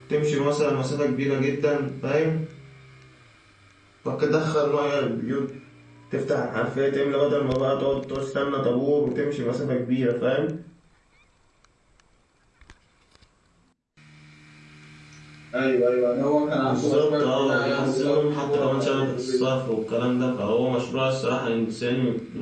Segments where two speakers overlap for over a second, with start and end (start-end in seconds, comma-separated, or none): 16.6-19.4